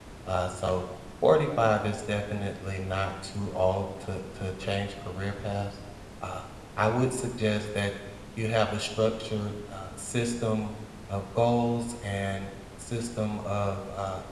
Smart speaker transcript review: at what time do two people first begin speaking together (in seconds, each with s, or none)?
none